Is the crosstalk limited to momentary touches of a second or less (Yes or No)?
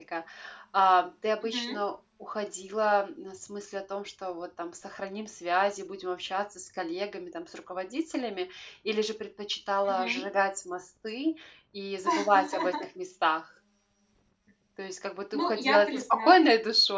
No